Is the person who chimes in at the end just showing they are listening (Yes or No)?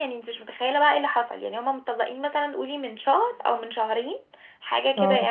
Yes